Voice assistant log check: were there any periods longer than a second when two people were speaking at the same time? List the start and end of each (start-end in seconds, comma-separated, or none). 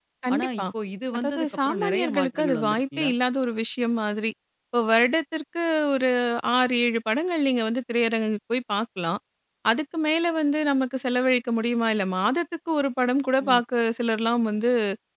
1.1-3.1